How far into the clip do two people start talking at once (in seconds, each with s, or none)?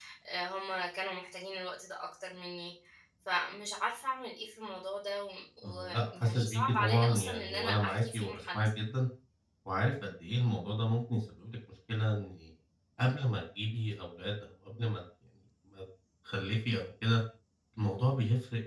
5.6 s